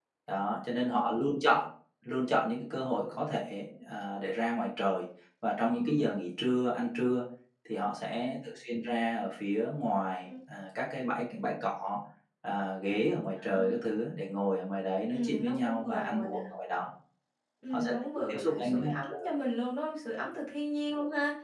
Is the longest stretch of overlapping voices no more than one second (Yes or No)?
No